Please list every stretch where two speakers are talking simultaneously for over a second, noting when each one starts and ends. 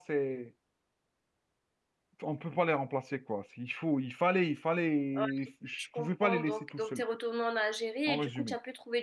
5.8-7.0

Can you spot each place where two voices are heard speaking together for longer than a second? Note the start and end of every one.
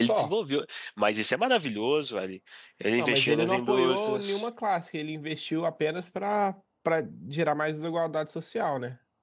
3.0-4.5

